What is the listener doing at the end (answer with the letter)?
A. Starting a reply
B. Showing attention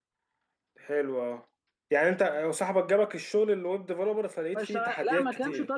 A